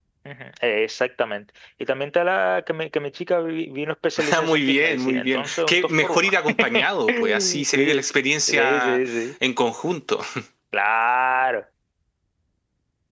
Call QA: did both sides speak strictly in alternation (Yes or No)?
No